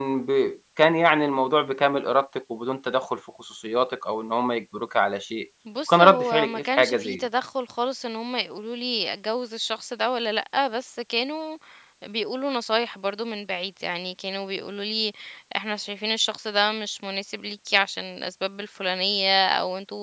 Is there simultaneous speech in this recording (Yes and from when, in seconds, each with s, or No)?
Yes, from 5.7 s